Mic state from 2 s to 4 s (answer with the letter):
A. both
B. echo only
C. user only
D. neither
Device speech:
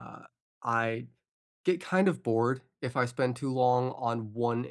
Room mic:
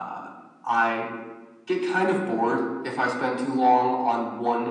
B